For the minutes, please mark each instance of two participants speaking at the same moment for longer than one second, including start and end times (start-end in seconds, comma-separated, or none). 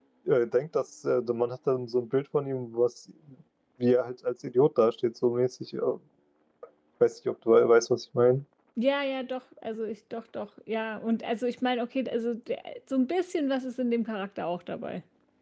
none